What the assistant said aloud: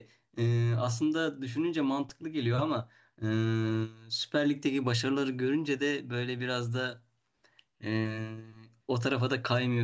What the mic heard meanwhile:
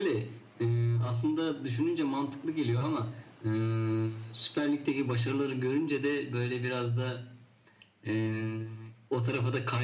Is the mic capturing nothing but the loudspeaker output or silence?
Yes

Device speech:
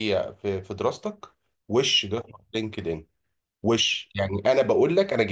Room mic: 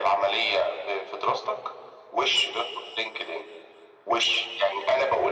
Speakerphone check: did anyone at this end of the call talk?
No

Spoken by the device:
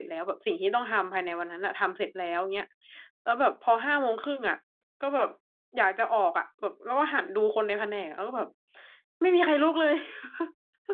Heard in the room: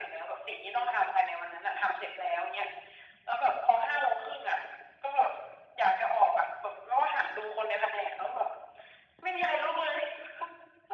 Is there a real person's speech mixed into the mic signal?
No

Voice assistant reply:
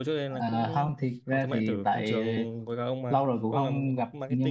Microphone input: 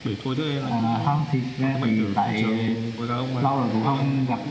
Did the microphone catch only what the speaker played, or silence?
Yes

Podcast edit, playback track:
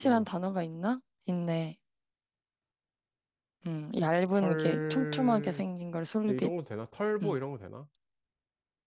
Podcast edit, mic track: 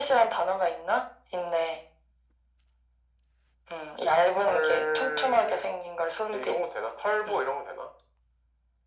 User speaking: No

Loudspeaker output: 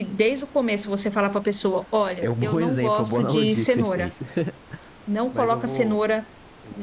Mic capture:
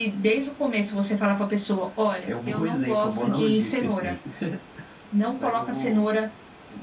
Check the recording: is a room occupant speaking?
No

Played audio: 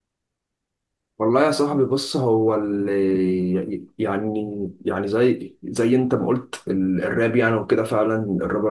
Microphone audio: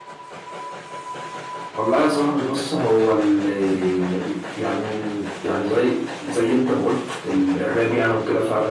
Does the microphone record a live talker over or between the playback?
No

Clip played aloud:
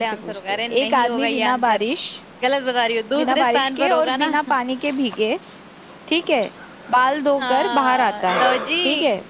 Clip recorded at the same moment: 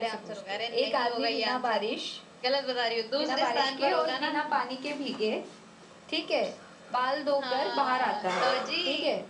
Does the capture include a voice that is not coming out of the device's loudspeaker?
No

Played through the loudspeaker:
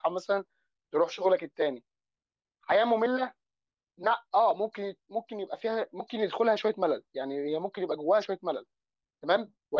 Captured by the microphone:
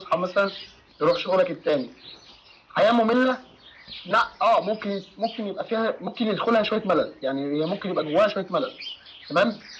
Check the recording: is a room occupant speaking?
No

